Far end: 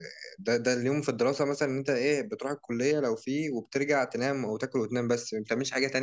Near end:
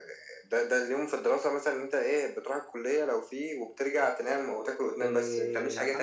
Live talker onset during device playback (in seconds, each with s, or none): 5.0 s